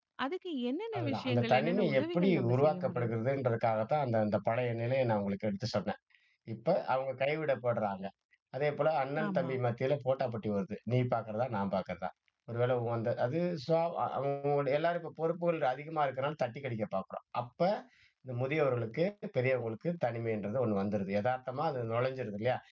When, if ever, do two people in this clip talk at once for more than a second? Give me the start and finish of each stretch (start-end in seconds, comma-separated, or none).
1.0-3.1